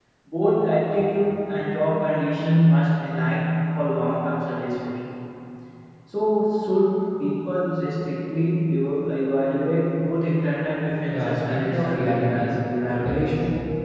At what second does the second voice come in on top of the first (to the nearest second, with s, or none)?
11 s